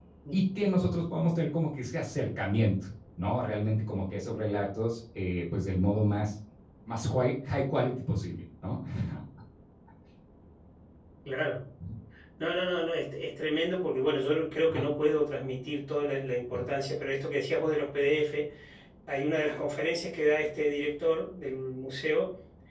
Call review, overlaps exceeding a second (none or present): none